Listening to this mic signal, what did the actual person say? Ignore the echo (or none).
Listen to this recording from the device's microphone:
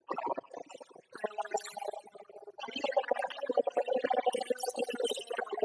none